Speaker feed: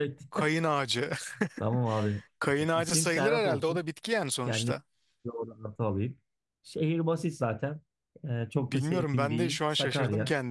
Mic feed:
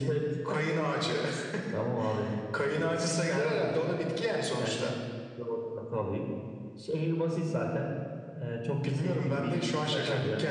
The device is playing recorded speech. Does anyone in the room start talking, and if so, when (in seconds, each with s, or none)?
none